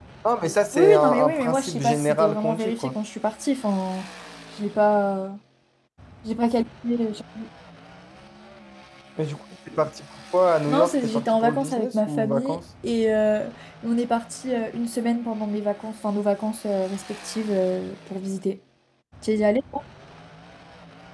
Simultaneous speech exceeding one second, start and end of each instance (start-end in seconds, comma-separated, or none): 0.7-2.9, 10.7-12.6